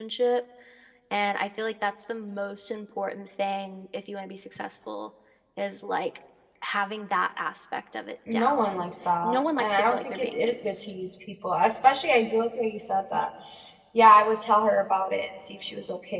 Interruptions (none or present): present